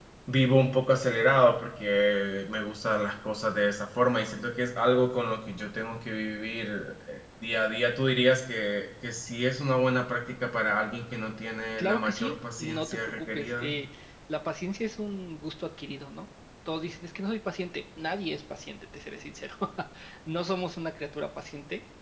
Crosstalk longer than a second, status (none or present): present